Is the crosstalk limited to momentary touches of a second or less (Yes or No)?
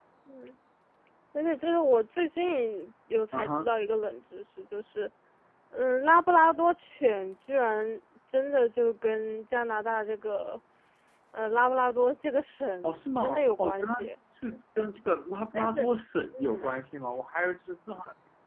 No